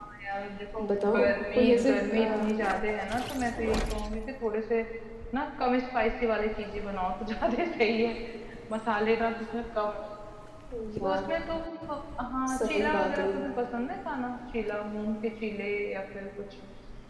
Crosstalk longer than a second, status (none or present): present